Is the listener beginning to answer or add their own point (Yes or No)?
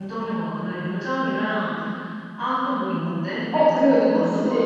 Yes